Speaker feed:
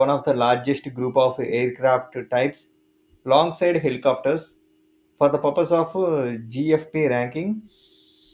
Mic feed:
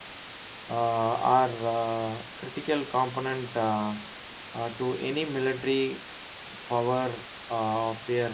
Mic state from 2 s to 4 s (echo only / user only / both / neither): user only